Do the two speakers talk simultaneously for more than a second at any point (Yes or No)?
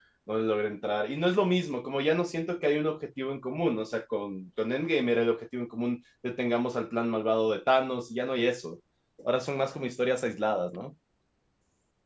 No